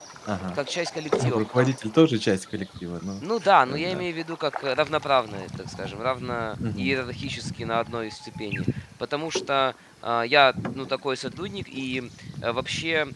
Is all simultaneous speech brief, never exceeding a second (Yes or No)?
Yes